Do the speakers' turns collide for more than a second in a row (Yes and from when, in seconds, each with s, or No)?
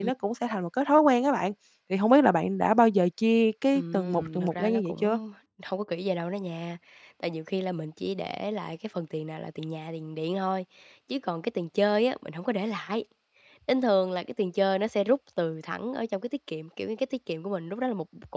Yes, from 3.7 s